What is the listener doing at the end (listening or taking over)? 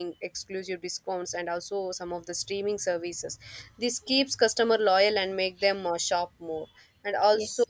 listening